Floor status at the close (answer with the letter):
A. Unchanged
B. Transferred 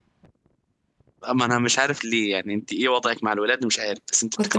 B